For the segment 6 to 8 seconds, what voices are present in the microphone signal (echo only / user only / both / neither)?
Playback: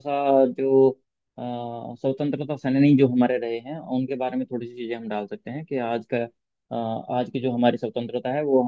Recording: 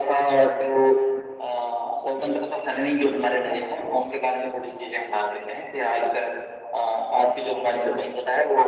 echo only